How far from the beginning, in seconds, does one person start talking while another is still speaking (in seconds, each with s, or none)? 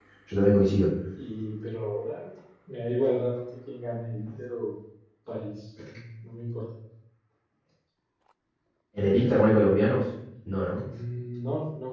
none